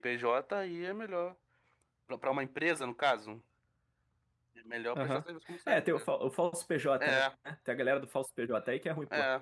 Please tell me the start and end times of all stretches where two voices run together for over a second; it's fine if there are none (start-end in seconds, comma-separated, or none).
none